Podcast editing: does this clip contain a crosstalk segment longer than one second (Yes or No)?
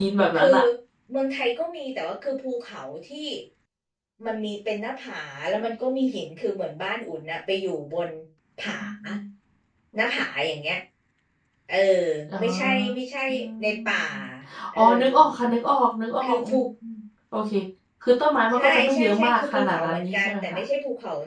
Yes